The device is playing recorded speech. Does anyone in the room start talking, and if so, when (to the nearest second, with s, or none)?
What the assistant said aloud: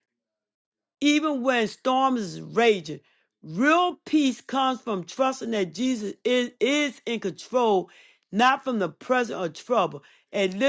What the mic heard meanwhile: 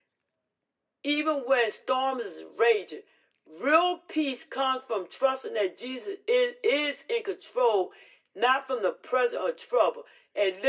none